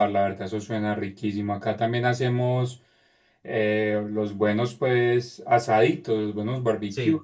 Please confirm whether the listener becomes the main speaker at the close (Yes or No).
No